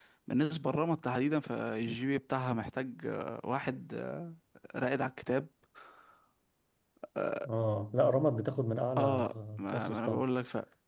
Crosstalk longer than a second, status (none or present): present